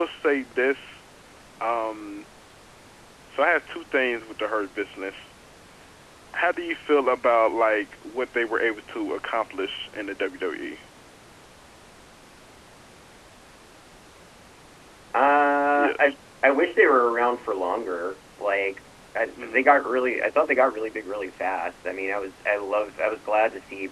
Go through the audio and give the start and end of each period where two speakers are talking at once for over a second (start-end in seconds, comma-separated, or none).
none